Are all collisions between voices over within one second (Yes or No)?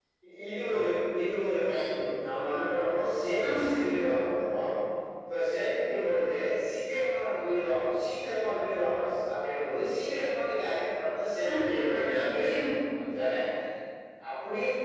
No